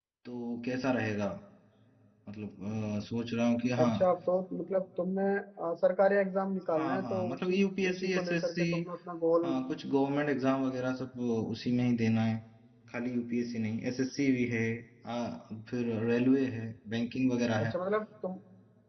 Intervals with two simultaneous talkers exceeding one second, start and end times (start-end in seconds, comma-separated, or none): 6.7-8.6